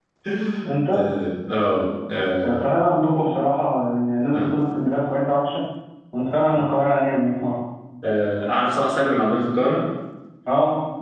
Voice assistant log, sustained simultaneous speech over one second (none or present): none